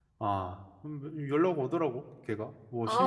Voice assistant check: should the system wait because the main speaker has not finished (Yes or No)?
No